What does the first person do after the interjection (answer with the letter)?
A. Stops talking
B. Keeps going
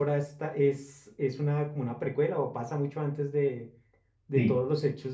B